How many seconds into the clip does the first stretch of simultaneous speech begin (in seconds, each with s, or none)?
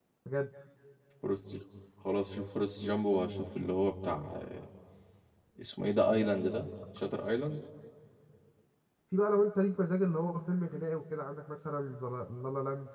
none